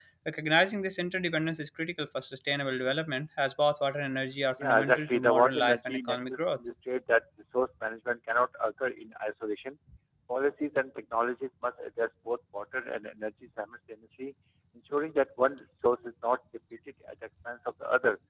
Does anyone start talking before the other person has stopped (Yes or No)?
Yes